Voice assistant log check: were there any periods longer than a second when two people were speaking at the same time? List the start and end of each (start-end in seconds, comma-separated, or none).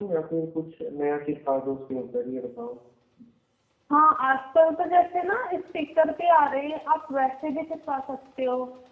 none